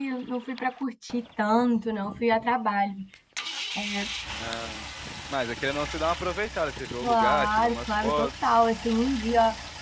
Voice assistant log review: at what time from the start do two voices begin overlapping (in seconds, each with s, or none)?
7.0 s